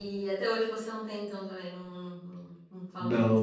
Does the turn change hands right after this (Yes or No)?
Yes